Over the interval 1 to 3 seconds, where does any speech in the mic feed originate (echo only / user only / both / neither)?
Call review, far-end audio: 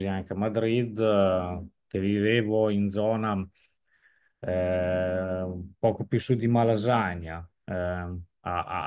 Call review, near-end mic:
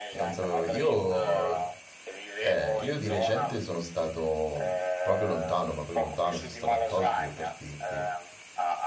both